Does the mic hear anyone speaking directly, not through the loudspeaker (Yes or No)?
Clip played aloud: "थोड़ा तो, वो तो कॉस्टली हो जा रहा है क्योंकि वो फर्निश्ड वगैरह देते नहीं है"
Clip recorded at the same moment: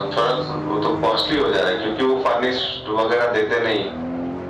No